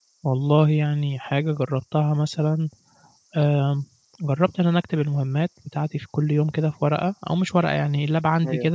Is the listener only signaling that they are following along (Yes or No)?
Yes